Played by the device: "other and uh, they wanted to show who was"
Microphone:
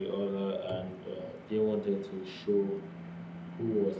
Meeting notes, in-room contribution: none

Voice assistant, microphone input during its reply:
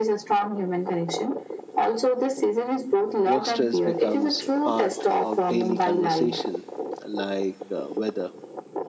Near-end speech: present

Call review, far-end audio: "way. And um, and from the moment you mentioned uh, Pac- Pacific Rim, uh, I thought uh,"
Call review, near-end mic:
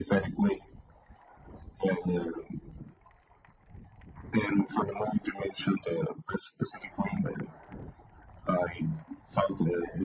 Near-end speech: none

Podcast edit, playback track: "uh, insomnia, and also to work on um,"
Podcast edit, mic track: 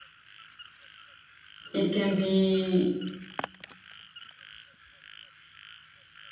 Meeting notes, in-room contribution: present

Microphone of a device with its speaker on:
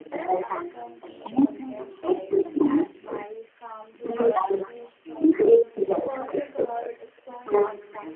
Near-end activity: present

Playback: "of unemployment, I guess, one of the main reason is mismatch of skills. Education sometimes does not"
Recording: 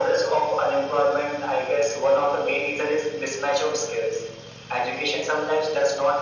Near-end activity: none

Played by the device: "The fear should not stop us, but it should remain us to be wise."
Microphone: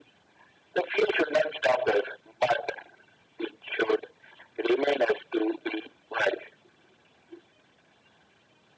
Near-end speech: none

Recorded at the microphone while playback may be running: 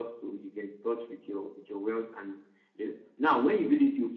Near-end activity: none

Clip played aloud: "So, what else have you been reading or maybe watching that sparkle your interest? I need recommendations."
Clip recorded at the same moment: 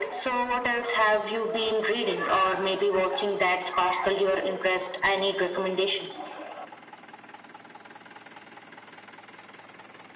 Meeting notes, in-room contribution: none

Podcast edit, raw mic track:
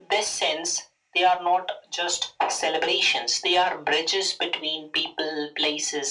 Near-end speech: none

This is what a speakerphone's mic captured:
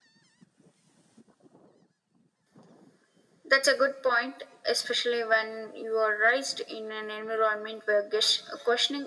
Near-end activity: none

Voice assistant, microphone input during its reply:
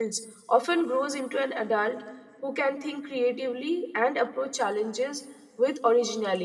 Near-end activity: present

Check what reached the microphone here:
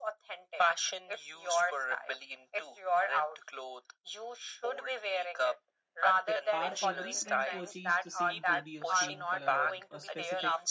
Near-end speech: present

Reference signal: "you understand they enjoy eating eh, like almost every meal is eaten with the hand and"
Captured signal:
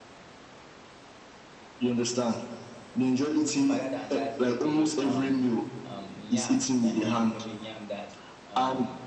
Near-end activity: present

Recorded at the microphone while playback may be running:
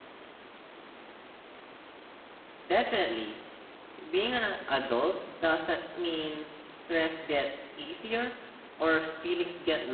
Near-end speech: present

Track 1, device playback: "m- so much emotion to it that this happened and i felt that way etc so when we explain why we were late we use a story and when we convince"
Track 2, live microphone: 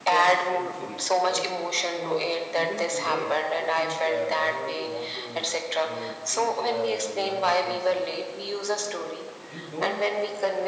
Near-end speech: present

